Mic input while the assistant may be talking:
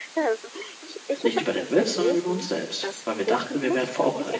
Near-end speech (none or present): present